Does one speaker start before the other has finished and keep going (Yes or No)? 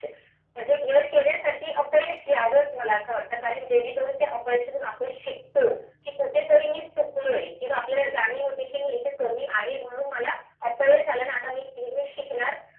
No